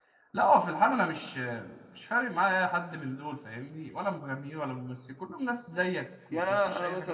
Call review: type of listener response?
taking over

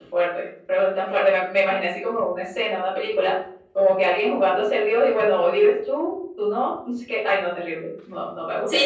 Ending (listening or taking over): taking over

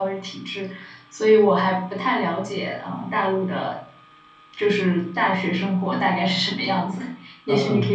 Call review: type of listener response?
taking over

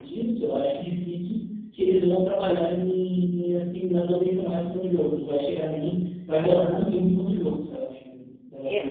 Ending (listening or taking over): taking over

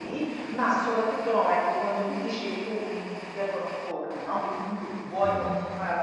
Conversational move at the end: listening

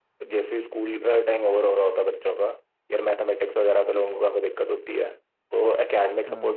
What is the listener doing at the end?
listening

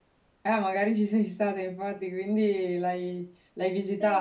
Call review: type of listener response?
taking over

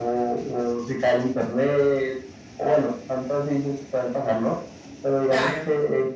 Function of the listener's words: listening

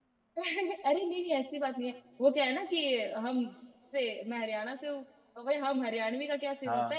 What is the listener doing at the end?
listening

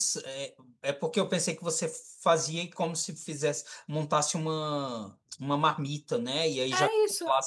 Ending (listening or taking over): listening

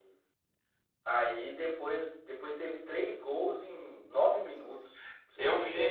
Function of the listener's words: taking over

